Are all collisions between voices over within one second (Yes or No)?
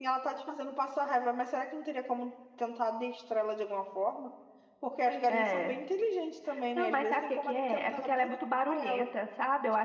No